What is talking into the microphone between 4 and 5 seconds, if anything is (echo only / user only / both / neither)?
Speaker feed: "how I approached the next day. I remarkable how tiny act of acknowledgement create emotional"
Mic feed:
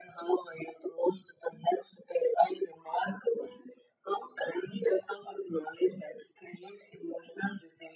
echo only